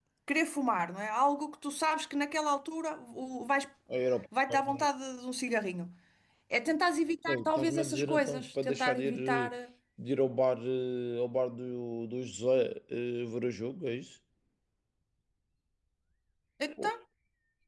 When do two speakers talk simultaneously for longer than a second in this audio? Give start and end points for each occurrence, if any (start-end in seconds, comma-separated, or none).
7.3-9.5